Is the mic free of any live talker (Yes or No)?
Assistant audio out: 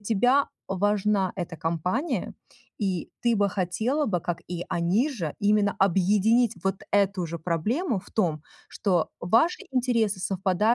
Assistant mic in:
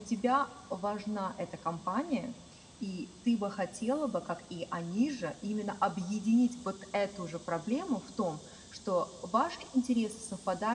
Yes